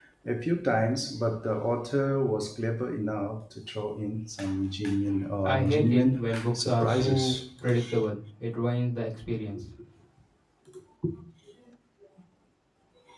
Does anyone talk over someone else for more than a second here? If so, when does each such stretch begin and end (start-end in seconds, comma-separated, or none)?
5.4-7.4